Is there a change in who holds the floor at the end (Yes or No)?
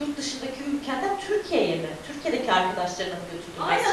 Yes